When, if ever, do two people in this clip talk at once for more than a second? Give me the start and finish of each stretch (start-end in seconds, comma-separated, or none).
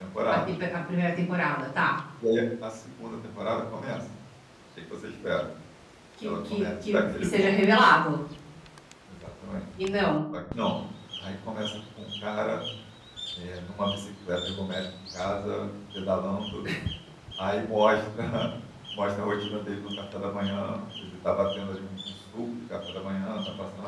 6.2-7.5